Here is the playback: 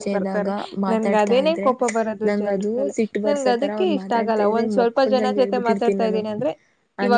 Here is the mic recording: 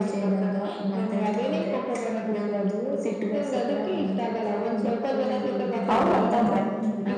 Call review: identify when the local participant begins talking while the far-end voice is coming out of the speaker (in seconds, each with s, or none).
5.9 s